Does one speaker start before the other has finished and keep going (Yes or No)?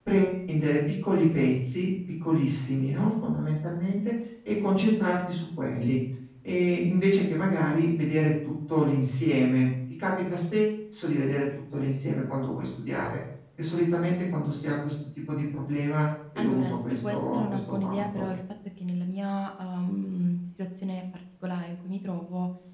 Yes